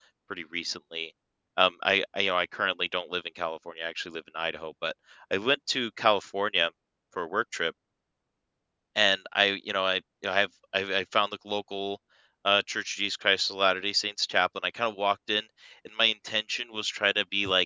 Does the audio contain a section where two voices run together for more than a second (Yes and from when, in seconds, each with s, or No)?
No